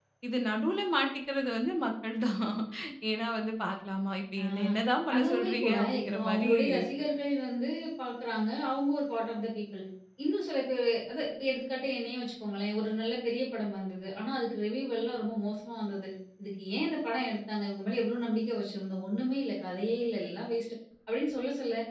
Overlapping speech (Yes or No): Yes